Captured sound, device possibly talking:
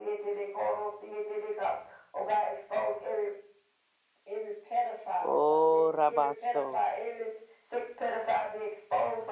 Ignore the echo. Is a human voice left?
Yes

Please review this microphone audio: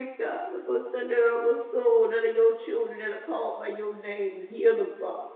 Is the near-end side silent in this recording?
Yes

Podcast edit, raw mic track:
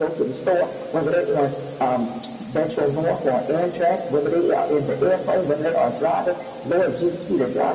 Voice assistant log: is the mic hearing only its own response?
Yes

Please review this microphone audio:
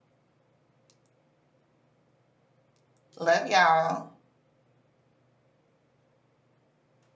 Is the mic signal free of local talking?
No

